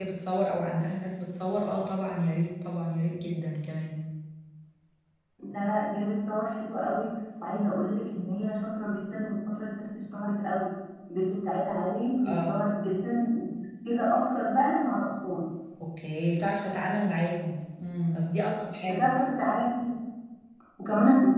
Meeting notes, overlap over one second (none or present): none